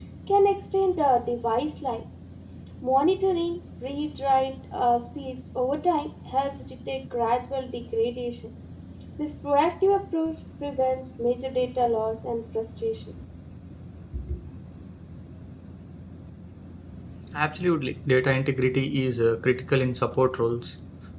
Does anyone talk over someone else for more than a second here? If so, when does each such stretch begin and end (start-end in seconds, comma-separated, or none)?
none